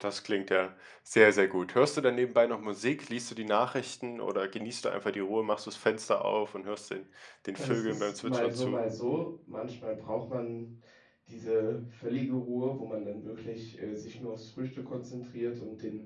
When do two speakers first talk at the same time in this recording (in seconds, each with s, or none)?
7.5 s